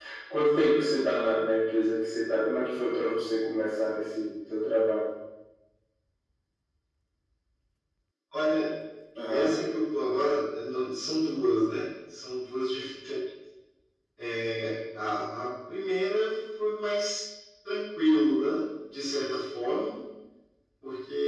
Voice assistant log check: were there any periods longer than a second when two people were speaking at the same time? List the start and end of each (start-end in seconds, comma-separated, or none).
none